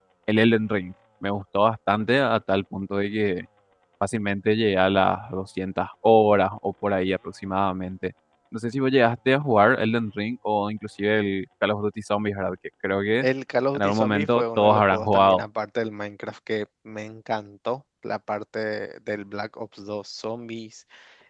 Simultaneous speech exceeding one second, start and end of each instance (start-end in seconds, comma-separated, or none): 13.8-15.4